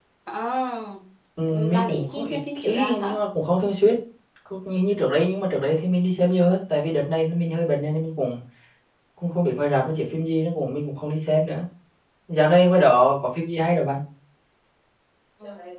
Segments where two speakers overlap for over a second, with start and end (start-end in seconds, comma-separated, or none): 1.7-3.1